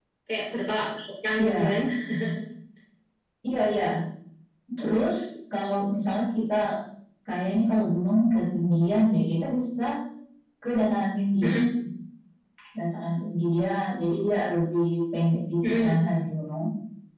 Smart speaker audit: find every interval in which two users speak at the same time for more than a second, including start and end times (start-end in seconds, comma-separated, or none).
none